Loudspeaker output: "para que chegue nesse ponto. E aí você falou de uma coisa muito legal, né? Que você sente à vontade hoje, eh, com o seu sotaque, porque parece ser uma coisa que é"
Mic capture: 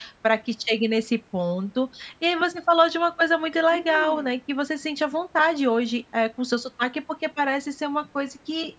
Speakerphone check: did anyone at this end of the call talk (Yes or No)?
Yes